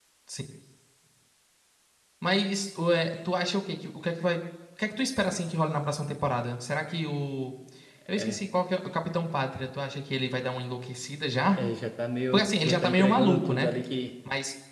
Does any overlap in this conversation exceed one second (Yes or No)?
Yes